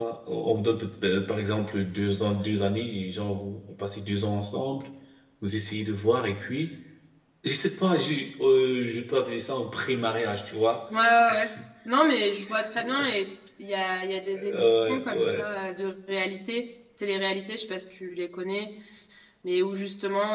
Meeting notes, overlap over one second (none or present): present